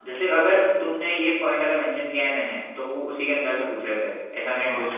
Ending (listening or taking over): taking over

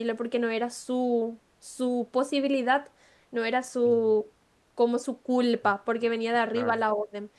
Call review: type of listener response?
listening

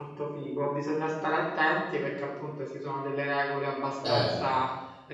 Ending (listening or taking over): listening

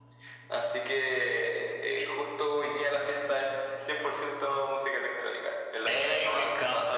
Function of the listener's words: taking over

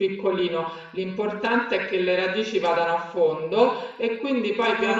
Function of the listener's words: listening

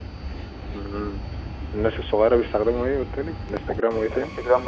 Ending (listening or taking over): taking over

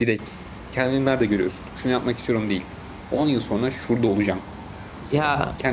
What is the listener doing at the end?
taking over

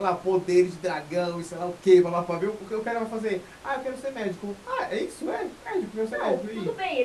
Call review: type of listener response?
taking over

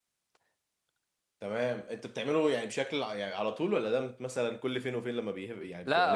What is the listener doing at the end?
taking over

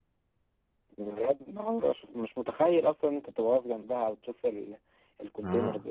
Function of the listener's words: taking over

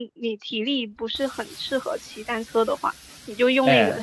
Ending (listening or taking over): listening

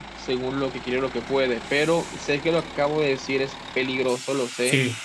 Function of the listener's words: listening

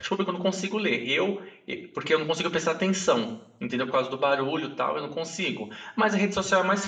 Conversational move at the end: listening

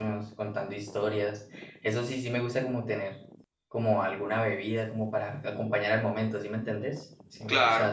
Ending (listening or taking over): taking over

